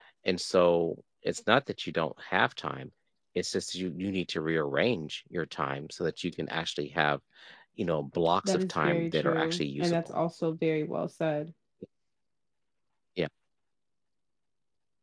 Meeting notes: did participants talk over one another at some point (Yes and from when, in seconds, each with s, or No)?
Yes, from 8.4 s